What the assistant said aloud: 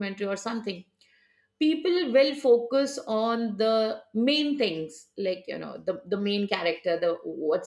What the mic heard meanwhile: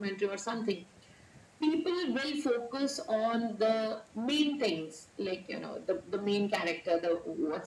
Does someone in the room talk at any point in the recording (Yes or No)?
No